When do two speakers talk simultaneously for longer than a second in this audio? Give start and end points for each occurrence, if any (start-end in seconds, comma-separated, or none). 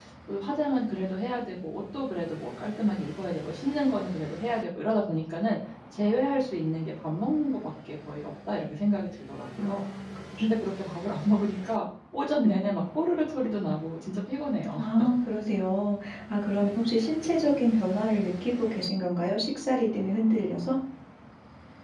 none